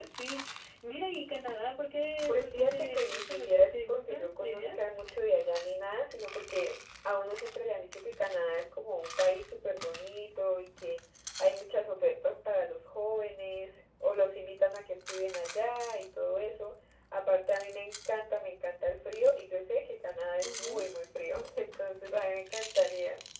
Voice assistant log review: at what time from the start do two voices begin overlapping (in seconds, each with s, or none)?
2.3 s